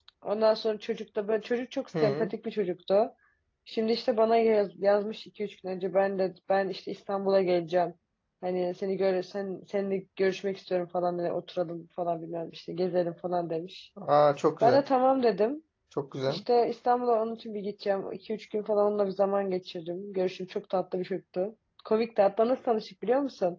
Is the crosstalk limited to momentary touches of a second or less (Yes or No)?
Yes